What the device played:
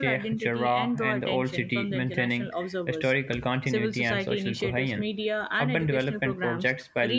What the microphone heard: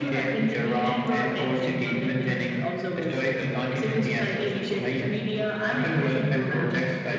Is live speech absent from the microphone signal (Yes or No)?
Yes